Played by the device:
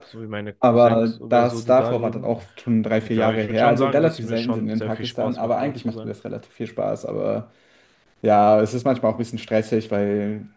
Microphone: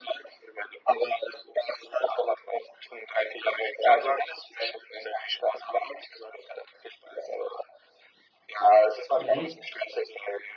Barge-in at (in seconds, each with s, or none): 9.2 s